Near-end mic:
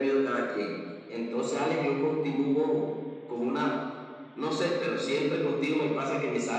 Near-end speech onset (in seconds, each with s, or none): none